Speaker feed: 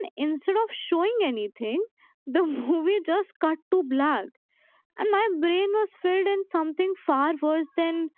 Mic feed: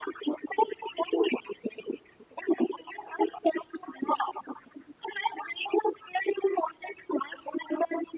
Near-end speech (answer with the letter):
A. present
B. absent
B